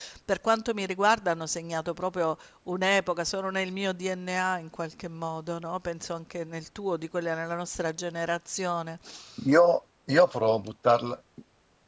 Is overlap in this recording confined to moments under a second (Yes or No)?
Yes